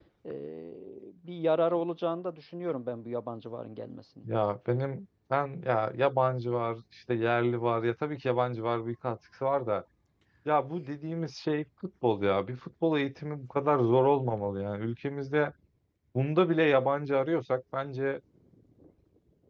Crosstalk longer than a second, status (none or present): none